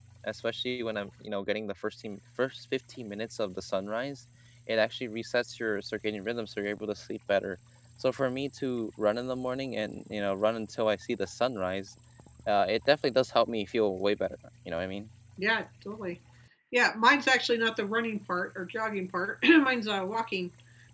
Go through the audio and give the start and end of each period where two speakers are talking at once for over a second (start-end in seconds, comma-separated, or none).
none